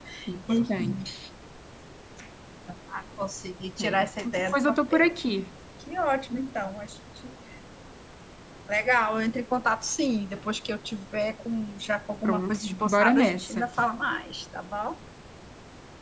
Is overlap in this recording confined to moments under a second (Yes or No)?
No